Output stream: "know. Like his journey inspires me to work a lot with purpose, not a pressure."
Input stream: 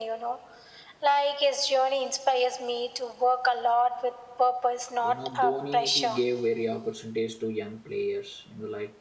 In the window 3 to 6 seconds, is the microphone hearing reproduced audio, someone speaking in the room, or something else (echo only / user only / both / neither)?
both